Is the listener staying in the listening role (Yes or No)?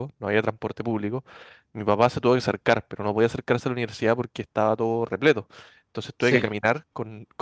Yes